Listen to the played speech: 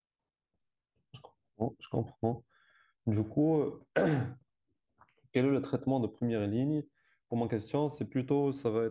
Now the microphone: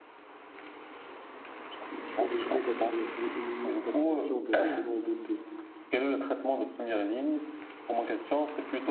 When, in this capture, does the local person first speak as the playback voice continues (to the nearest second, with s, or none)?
2 s